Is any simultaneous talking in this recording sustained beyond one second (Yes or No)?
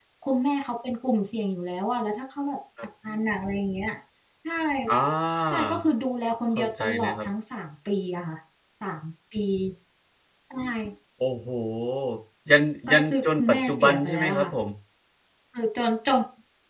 Yes